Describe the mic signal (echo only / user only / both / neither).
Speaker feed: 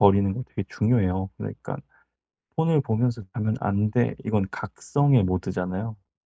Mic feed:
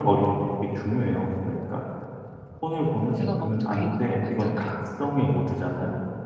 both